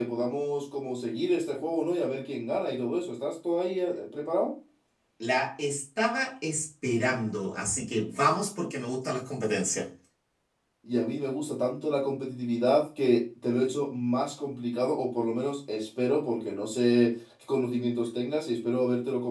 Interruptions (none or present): none